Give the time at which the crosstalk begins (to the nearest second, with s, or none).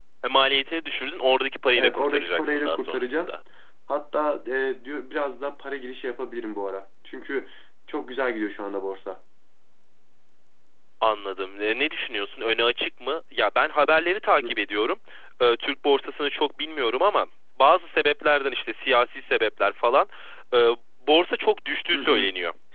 2 s